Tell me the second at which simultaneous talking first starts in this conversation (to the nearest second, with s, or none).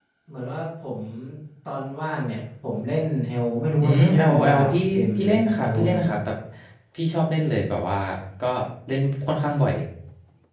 4 s